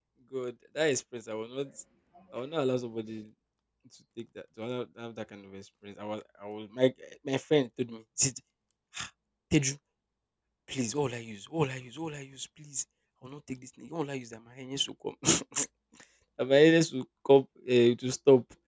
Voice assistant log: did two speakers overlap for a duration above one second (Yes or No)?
No